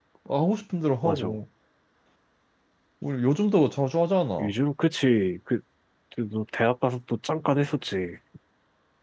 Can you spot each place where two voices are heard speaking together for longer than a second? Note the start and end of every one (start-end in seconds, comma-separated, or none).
none